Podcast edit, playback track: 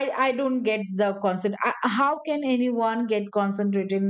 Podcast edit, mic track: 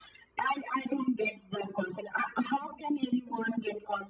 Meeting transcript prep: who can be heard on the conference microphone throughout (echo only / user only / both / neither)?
echo only